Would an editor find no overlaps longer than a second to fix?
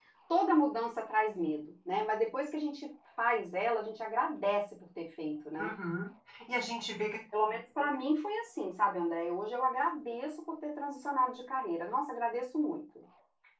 Yes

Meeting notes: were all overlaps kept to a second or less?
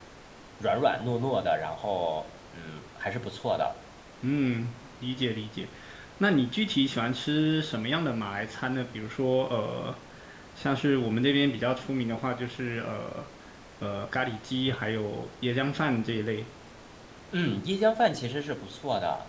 Yes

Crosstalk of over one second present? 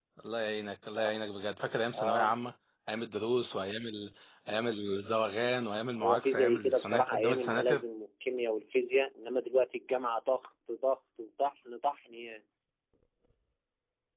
Yes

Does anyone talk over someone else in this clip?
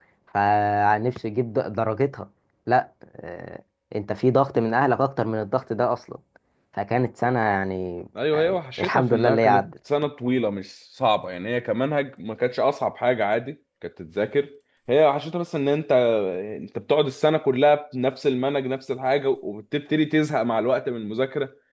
Yes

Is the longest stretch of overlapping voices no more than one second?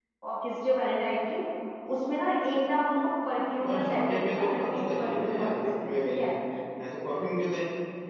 No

